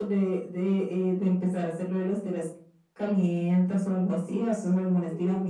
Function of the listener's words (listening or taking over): taking over